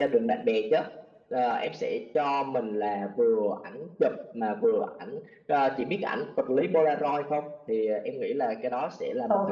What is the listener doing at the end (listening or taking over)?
taking over